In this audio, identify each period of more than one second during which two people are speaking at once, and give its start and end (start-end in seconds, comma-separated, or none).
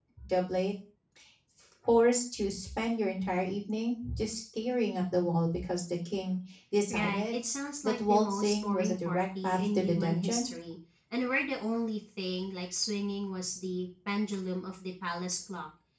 7.8-10.5